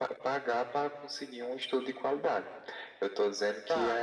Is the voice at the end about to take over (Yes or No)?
Yes